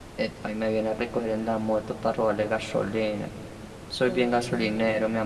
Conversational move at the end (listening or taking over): taking over